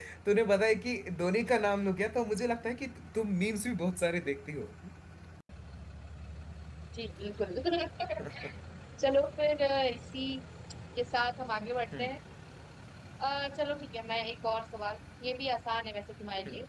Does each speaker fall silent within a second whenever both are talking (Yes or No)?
Yes